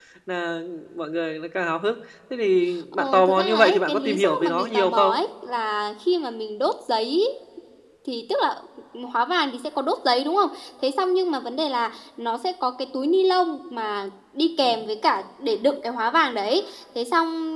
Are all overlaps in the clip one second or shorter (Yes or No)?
No